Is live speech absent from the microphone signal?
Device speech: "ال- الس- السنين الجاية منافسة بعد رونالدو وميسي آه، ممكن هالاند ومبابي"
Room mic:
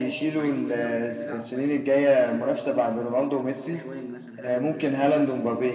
No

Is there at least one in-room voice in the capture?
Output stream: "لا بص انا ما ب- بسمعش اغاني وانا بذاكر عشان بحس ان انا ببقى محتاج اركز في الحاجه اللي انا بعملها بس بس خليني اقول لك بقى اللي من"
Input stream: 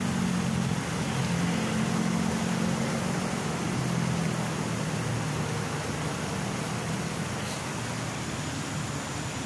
No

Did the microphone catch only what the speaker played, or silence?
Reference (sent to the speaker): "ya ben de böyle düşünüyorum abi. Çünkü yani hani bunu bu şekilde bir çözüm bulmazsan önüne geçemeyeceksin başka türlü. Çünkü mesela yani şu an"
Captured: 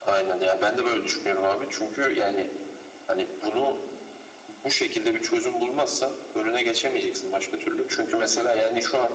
Yes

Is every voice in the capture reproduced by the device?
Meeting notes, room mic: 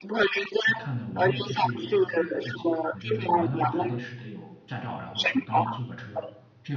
No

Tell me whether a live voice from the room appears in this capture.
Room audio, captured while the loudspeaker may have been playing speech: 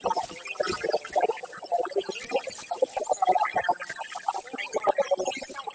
No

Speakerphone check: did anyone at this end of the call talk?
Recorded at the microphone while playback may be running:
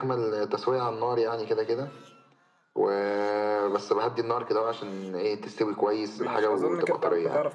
Yes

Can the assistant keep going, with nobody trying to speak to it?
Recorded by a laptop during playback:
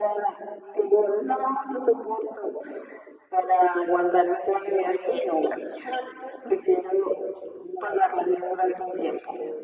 Yes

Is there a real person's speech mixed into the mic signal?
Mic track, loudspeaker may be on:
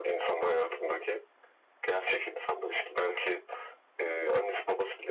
No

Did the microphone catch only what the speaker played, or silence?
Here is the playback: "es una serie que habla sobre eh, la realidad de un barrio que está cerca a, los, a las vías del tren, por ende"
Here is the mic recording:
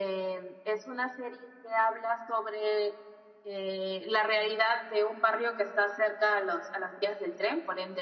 Yes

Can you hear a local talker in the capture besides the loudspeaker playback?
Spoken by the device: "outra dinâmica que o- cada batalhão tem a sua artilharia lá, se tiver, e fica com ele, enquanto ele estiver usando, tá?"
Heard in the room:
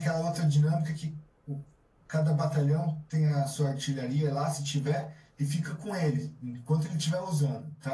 No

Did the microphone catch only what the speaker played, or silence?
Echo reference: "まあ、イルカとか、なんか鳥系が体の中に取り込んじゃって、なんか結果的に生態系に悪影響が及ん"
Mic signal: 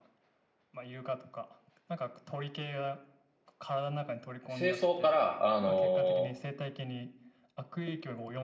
No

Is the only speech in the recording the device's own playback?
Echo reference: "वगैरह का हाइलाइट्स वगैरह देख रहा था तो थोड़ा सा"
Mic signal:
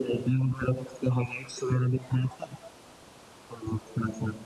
Yes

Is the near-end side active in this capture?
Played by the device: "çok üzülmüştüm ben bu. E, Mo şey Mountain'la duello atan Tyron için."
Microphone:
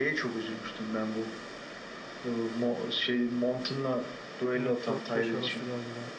Yes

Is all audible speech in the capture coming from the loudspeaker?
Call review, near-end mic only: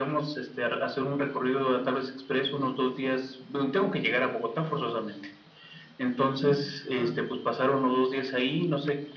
Yes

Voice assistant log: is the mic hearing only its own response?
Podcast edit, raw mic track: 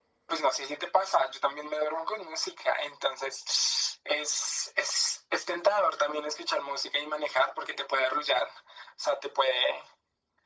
Yes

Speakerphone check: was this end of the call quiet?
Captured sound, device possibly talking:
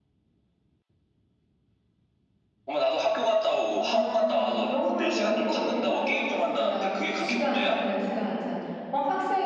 No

